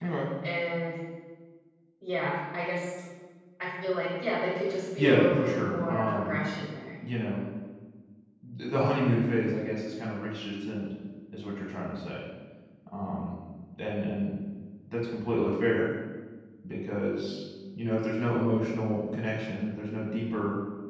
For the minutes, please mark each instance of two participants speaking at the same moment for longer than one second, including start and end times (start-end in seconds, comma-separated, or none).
5.0-6.4